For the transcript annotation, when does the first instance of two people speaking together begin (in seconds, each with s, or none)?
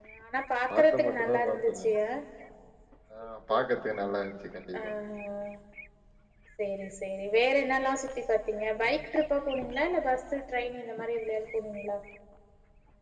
0.7 s